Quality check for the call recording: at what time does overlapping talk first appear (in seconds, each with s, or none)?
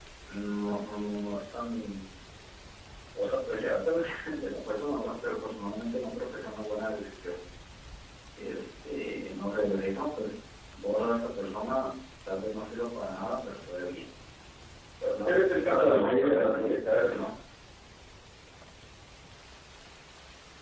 15.2 s